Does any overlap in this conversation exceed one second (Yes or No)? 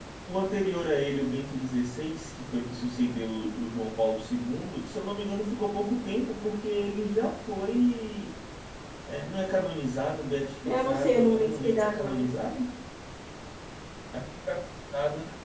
Yes